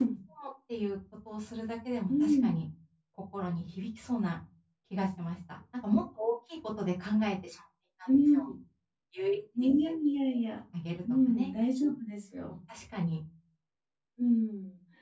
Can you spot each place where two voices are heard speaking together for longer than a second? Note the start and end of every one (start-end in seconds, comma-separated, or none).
none